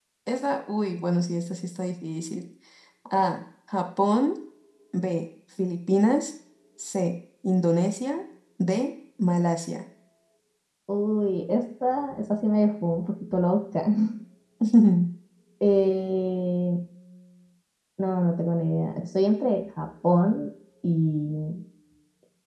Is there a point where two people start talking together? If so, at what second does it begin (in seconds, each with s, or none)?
none